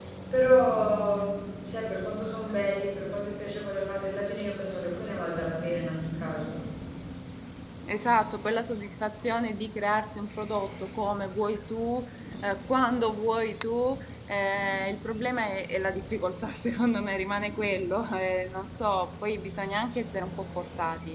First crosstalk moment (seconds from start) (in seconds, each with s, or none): none